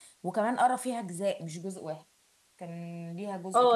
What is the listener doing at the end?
taking over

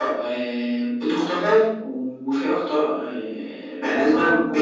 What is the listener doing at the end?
listening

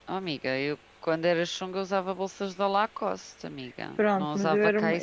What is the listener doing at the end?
taking over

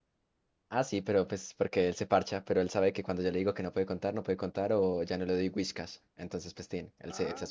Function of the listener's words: taking over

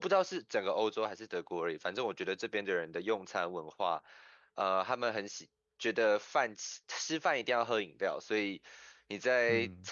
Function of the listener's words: listening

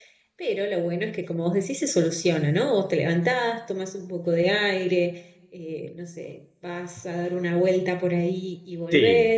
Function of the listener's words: listening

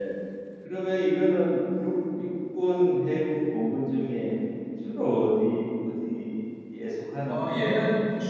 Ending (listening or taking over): taking over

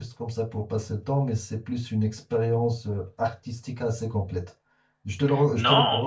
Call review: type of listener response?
taking over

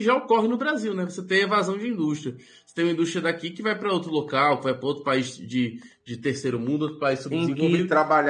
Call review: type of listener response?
taking over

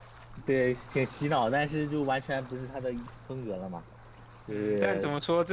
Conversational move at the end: taking over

